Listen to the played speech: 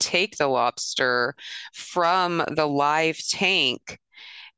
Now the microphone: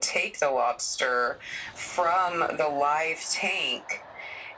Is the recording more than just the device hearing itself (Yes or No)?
No